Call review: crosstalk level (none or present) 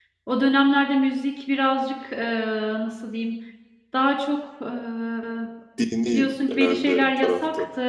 present